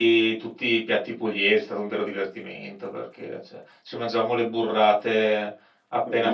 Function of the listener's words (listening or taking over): listening